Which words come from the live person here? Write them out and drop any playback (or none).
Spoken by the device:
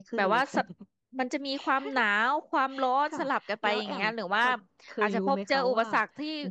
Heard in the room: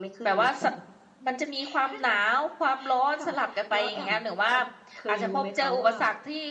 none